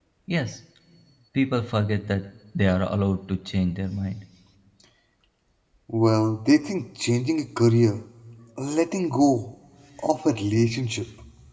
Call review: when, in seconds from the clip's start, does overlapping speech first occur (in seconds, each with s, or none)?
none